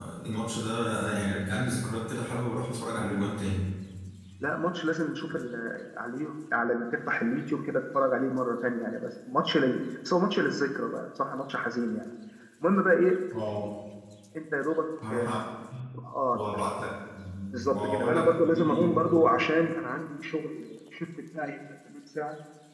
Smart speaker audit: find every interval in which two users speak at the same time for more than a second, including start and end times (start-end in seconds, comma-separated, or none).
17.6-19.3